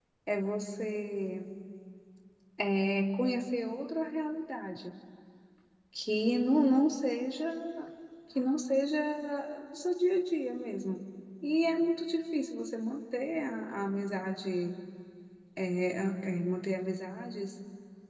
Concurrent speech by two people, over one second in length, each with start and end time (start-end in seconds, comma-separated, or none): none